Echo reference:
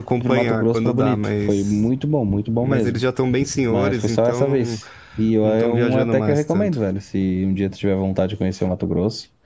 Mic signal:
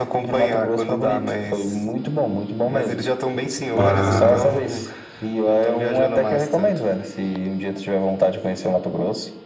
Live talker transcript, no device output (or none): para